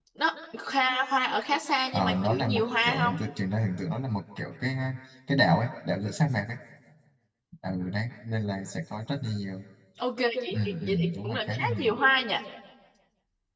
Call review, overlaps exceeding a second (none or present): present